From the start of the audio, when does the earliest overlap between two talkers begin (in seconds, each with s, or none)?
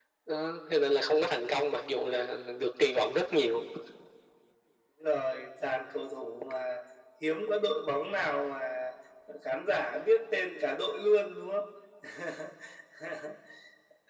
none